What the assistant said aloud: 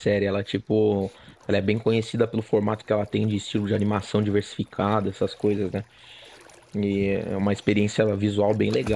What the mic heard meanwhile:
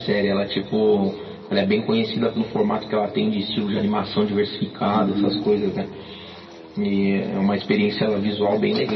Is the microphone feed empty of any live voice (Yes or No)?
No